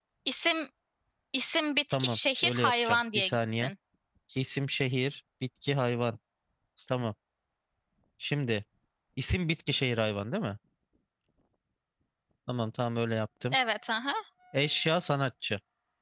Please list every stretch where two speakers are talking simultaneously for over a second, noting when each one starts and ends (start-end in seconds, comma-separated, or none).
1.9-3.7